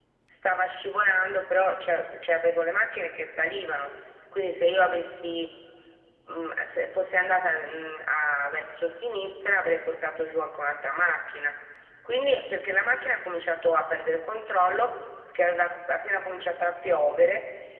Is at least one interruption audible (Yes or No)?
No